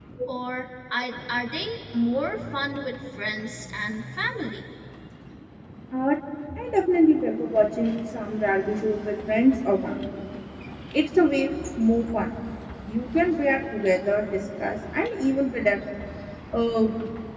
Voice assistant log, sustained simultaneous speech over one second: none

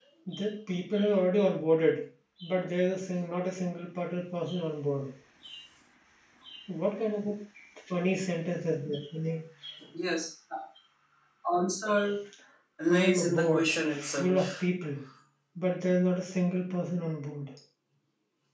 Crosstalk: present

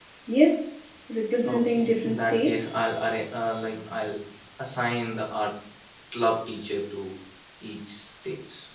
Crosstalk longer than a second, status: present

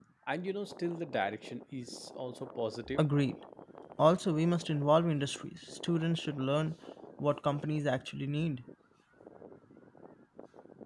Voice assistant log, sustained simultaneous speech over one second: none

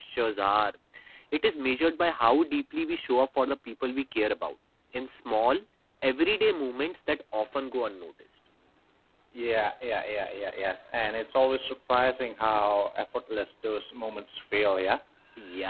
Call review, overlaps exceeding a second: none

